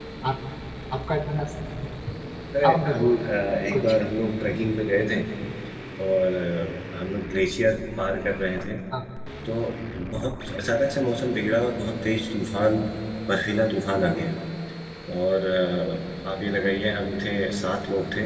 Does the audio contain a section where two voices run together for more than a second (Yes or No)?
No